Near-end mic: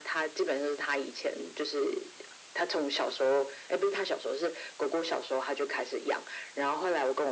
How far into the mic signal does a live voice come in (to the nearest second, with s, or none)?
none